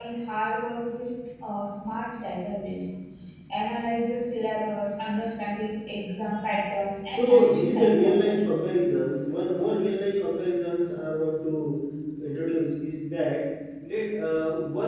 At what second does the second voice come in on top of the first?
7 s

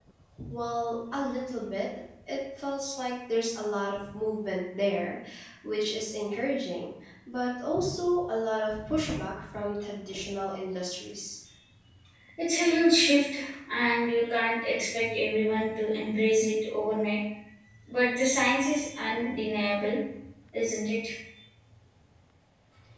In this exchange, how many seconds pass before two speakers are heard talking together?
none

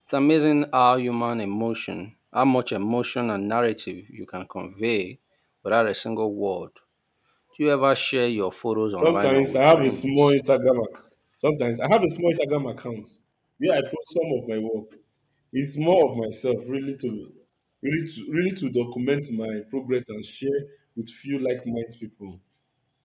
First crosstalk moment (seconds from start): 9 s

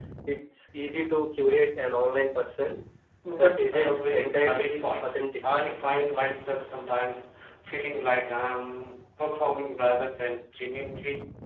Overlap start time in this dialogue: 3 s

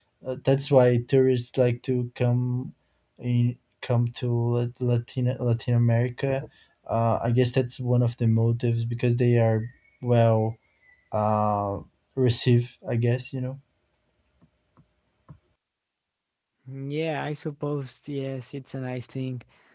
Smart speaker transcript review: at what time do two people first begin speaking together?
none

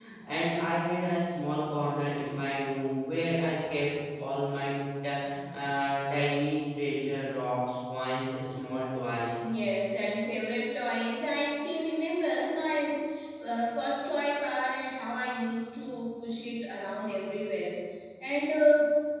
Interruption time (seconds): none

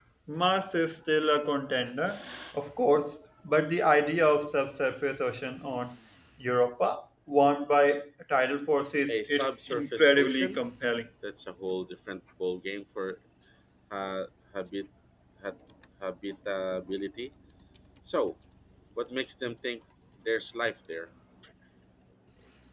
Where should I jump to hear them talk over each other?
9 s

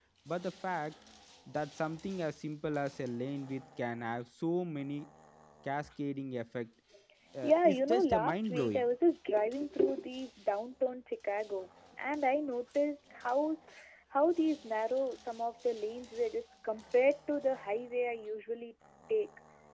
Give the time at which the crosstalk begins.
7 s

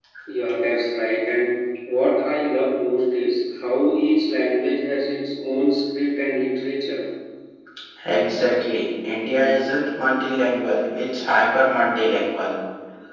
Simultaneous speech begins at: none

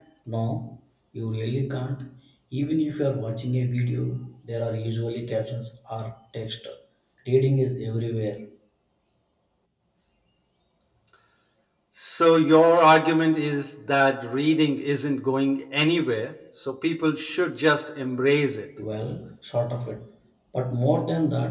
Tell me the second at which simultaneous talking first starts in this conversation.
none

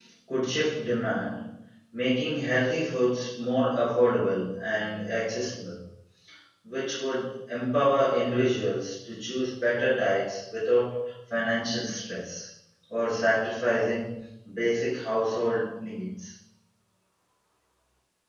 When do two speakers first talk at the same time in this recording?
none

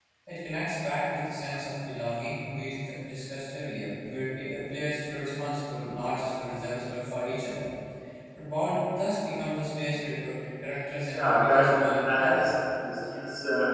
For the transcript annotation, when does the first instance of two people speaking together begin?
11 s

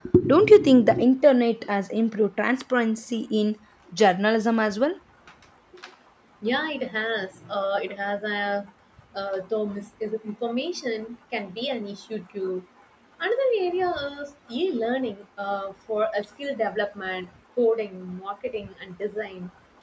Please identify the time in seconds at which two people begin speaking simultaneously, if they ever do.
none

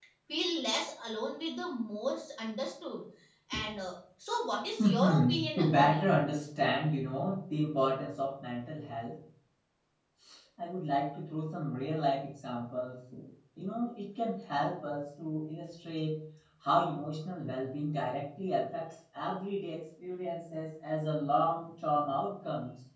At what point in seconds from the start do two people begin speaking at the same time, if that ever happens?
5 s

